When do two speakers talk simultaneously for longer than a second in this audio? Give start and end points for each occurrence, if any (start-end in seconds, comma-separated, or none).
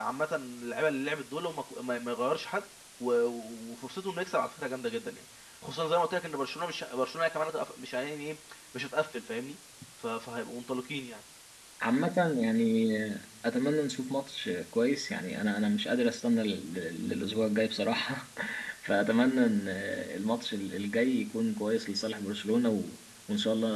none